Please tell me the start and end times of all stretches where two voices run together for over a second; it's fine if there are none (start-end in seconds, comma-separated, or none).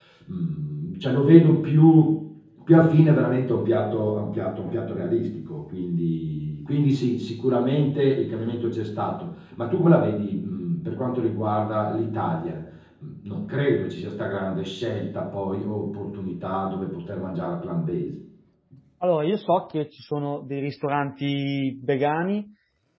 none